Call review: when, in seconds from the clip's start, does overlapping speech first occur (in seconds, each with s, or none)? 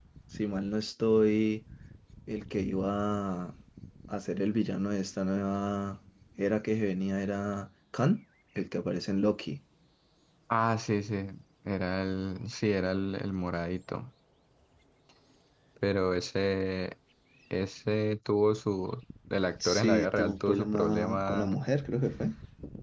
19.6 s